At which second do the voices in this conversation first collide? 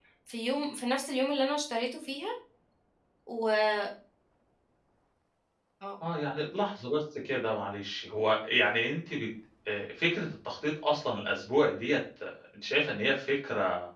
none

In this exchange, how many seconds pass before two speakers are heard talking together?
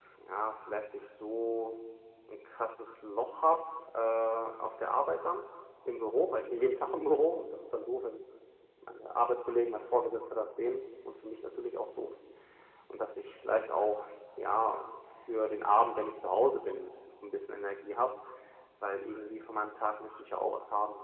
none

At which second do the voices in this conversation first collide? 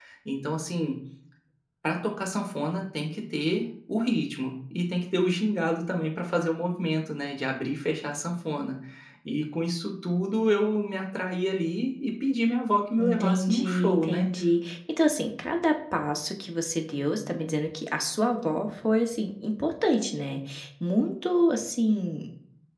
13.0 s

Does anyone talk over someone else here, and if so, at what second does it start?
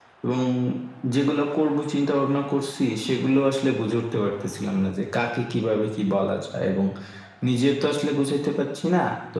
none

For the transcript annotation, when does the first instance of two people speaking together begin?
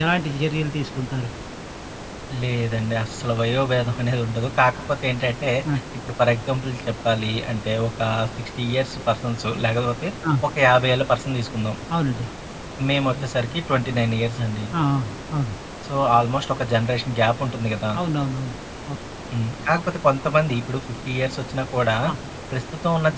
none

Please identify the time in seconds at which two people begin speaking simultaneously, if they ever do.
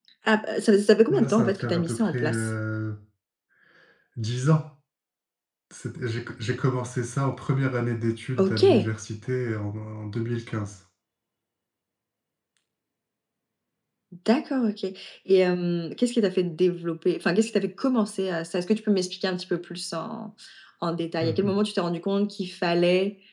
1.1 s

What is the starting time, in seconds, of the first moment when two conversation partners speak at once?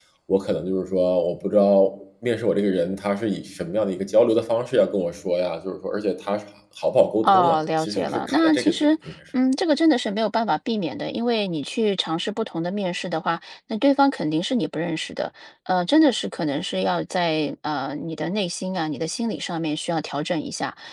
7.2 s

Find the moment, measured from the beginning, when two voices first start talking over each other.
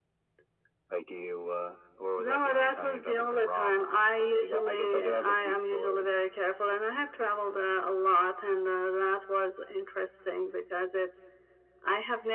2.2 s

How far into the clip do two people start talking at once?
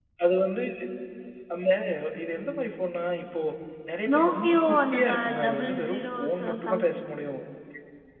4.1 s

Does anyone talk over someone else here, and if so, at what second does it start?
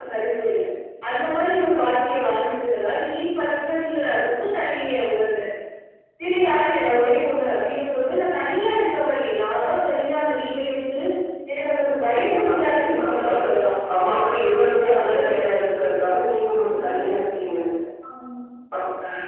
12.2 s

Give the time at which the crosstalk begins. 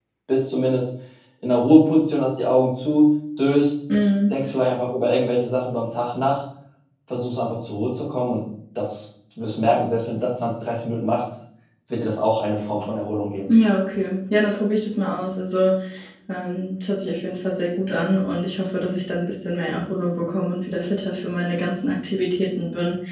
none

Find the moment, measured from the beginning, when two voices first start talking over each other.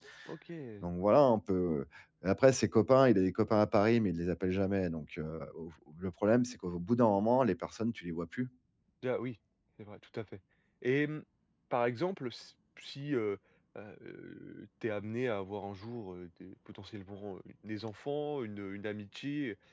none

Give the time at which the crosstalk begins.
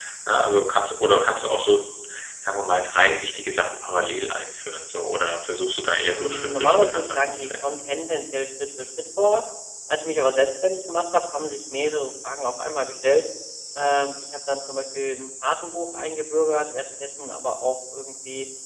6.0 s

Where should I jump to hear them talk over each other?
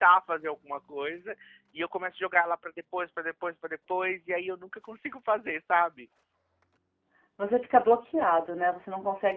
none

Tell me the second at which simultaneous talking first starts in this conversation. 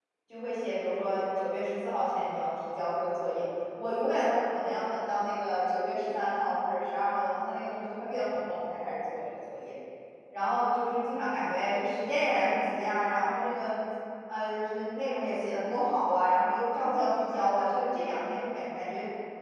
none

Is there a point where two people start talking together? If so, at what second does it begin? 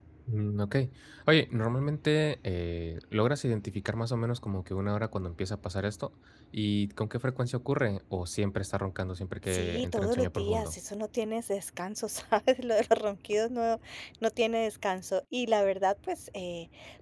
9.5 s

